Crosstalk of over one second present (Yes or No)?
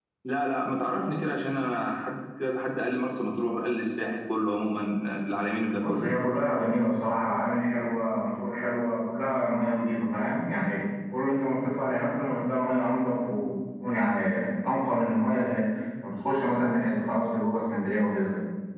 No